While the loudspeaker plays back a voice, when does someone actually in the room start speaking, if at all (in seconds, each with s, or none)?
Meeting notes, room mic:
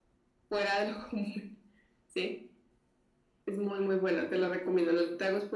none